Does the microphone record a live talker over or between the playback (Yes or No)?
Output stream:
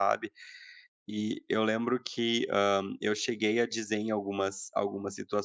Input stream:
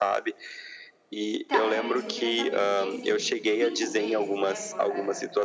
Yes